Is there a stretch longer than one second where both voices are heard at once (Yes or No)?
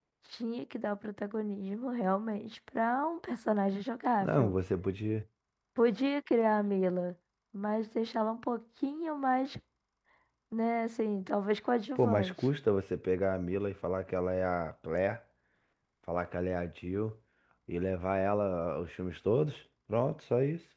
No